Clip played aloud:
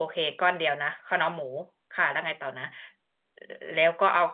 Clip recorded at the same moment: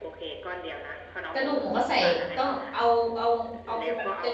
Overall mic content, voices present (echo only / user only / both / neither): both